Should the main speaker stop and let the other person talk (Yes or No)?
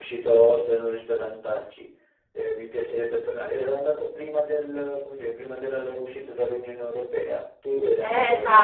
Yes